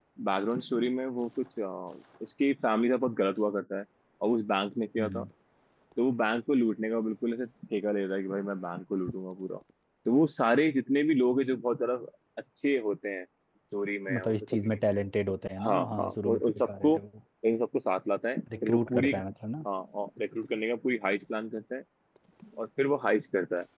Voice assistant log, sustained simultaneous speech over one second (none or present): present